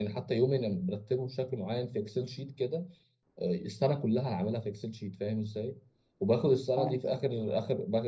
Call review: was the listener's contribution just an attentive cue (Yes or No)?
Yes